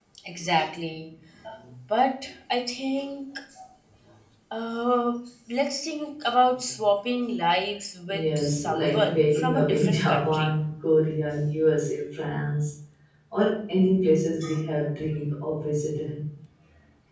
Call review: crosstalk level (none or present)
present